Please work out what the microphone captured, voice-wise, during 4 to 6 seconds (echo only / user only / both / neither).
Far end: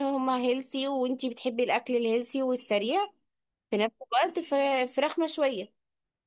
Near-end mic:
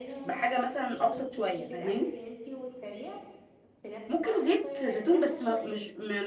both